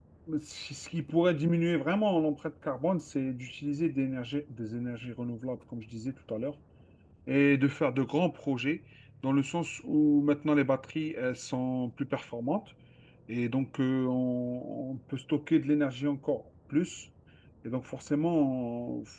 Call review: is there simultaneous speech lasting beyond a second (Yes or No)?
No